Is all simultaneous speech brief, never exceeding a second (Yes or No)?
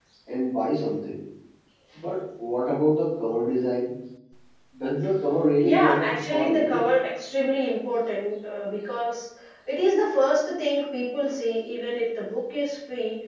No